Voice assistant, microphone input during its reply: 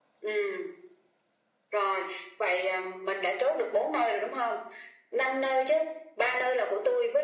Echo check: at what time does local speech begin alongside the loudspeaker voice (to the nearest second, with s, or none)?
none